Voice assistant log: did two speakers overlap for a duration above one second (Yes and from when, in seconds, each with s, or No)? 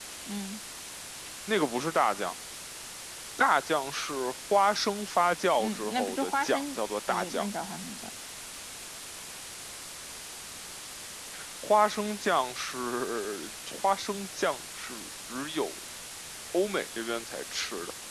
Yes, from 5.6 s